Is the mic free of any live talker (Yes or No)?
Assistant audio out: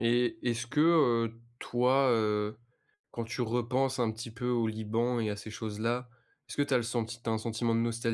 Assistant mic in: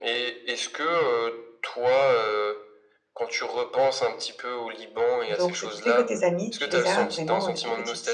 No